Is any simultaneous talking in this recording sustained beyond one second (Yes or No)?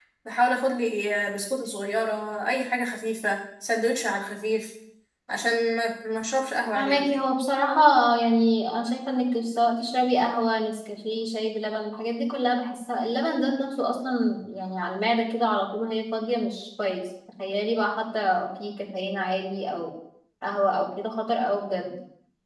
No